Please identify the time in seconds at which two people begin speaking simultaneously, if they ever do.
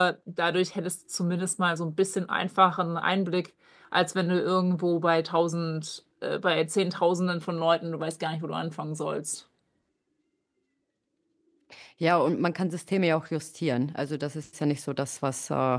none

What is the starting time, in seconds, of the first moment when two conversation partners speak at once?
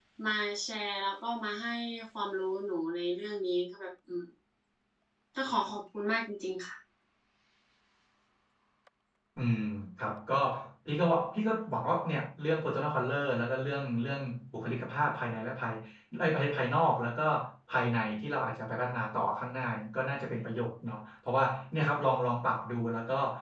none

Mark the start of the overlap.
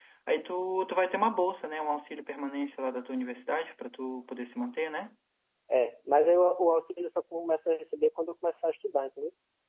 none

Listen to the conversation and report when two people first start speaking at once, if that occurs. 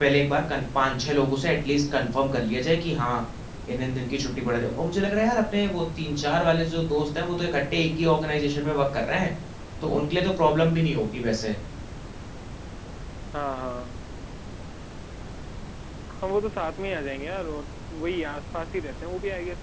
none

